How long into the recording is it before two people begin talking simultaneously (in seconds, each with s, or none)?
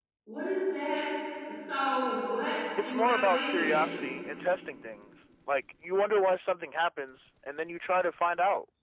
2.8 s